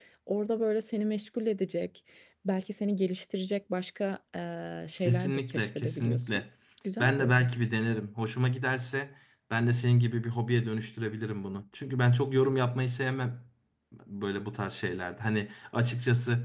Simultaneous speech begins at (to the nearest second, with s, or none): 5 s